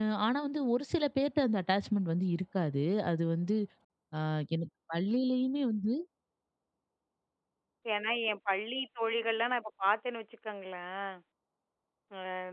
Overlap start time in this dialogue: none

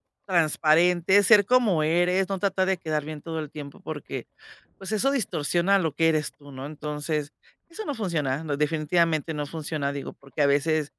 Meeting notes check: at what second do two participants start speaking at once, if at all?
none

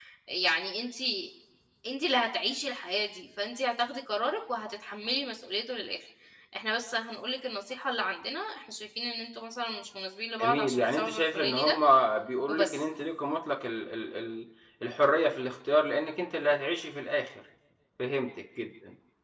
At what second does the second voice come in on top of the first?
10.4 s

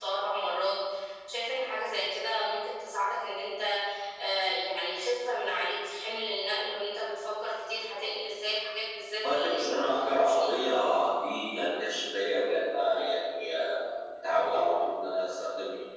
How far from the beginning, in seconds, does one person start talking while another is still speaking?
9.2 s

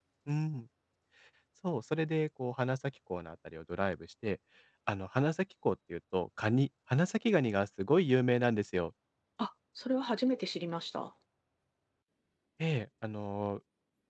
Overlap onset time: none

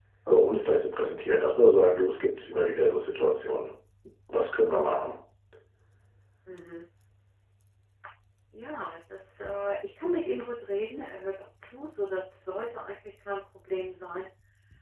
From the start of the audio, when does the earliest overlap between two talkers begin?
none

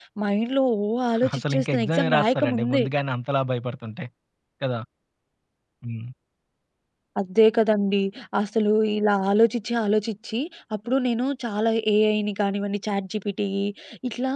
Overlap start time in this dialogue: 1.1 s

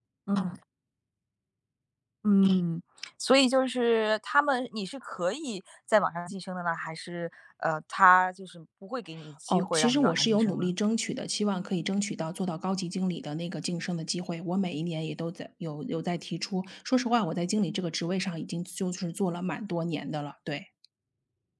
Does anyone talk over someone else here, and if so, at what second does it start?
9.5 s

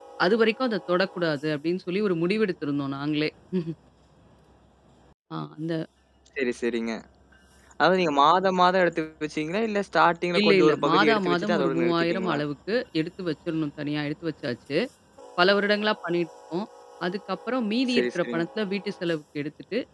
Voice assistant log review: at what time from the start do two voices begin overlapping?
10.4 s

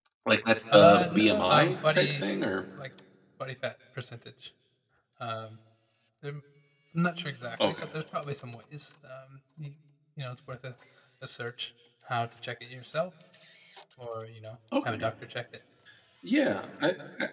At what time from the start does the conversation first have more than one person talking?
0.7 s

